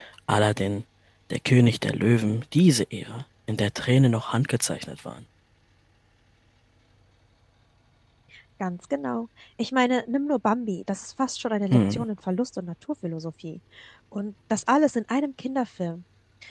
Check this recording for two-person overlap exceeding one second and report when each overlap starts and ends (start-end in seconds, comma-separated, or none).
none